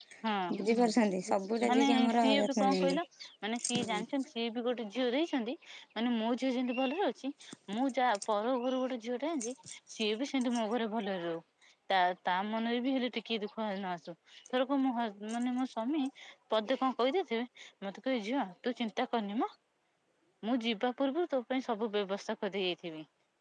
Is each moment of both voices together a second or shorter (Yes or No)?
No